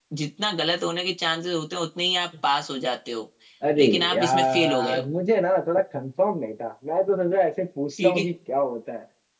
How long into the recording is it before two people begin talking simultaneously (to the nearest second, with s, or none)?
4 s